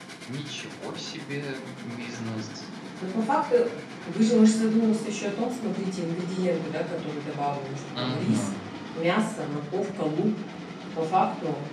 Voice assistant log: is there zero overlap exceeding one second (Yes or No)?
Yes